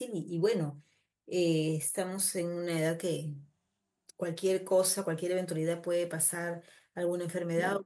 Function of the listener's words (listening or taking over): listening